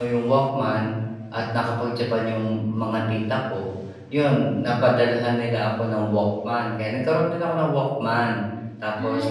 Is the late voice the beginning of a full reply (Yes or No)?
No